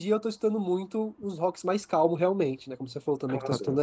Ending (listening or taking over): taking over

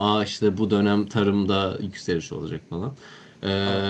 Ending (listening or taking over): listening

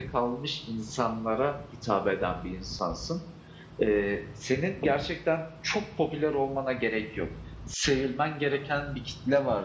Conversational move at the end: listening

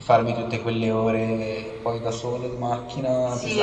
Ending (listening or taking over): taking over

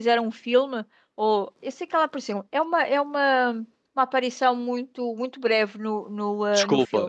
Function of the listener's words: taking over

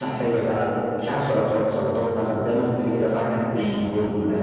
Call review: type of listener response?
listening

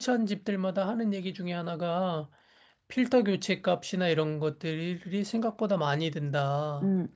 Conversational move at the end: taking over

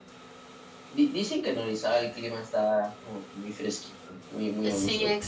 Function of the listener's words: taking over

